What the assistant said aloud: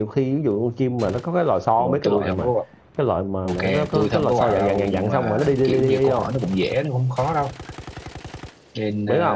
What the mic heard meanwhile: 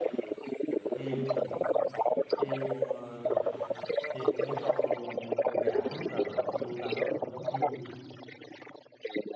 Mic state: both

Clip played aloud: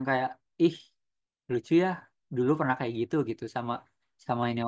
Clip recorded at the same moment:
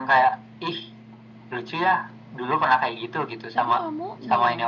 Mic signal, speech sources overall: both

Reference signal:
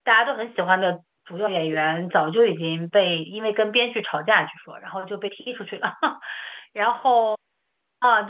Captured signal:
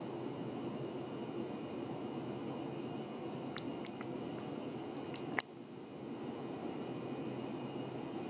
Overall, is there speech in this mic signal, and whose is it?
neither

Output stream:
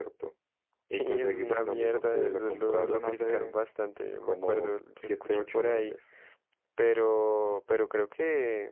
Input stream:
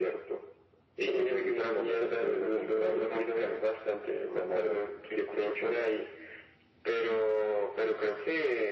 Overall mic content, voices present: echo only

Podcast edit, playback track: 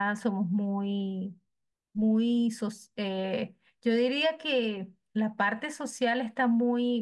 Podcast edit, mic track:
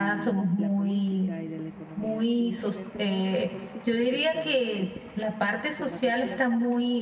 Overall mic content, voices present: both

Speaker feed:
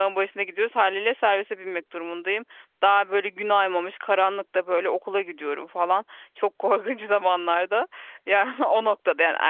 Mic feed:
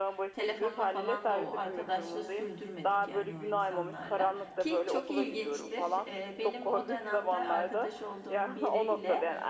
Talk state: both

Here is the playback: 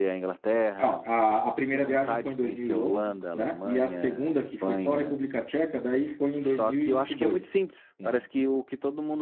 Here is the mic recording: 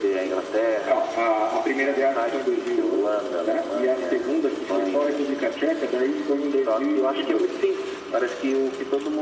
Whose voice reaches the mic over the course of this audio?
echo only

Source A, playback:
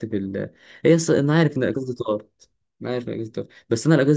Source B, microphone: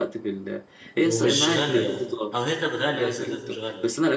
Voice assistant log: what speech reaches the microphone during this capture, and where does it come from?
both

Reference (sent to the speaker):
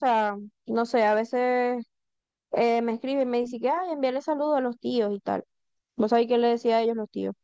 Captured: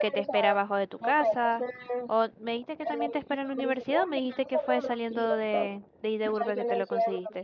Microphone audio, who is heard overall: both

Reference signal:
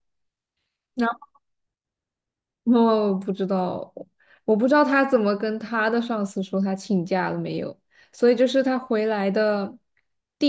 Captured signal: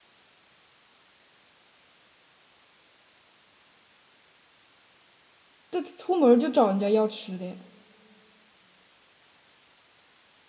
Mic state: user only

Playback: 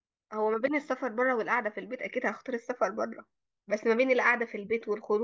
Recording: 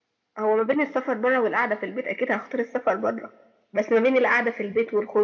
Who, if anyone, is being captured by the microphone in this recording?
echo only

